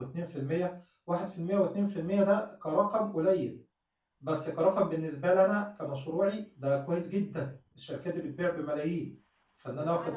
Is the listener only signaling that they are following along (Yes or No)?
No